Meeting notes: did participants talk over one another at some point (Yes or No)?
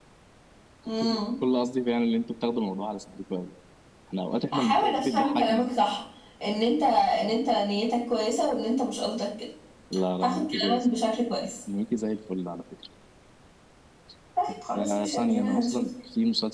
Yes